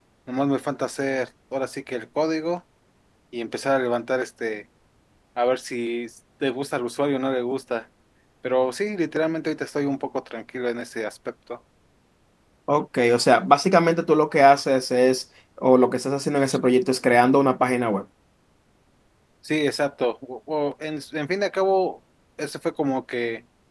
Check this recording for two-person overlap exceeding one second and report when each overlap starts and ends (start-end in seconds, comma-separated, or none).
none